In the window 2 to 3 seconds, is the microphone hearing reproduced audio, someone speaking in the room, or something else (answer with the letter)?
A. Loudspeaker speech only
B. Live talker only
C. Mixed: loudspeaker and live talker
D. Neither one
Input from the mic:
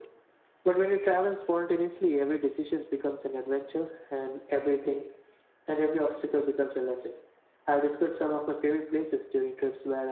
A